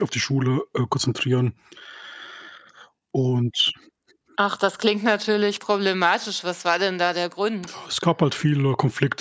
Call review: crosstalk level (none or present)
none